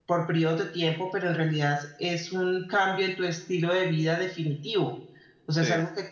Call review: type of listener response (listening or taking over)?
listening